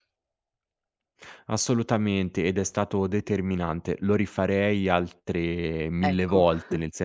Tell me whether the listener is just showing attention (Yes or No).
Yes